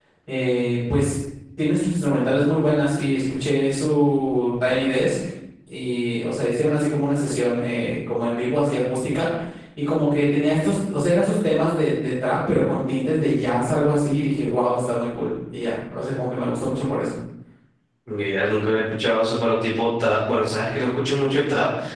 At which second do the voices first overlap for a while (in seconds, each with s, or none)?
none